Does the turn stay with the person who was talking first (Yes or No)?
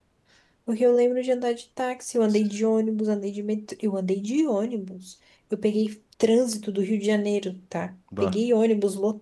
Yes